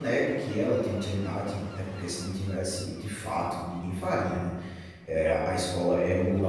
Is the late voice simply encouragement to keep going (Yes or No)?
Yes